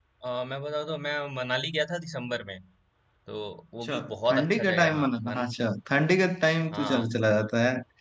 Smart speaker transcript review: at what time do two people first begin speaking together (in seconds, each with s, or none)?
3.8 s